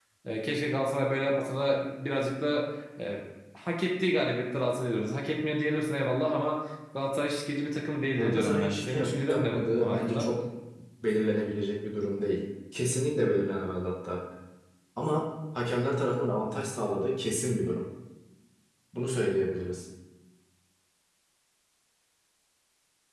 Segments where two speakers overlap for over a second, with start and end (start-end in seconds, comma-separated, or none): 8.2-10.3